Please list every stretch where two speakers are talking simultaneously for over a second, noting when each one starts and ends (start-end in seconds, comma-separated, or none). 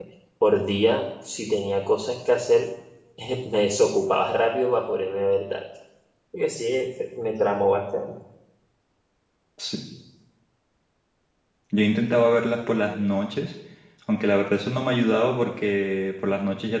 none